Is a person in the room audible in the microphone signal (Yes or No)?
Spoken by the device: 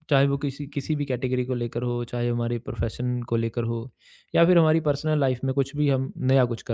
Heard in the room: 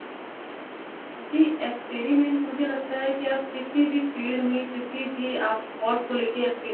Yes